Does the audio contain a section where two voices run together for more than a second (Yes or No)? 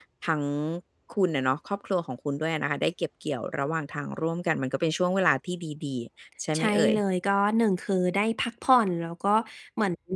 No